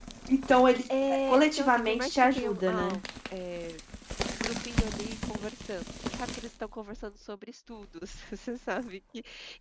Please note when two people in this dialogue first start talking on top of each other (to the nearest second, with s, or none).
1 s